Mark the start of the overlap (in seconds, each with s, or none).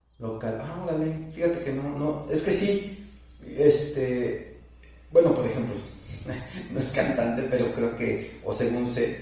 none